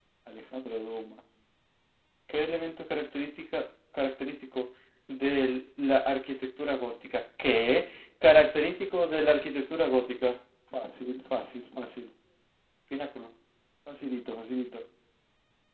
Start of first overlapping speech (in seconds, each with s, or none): none